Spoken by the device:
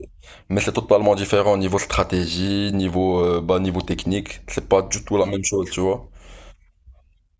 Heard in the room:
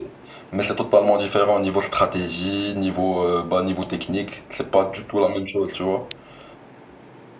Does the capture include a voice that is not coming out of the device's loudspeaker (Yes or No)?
No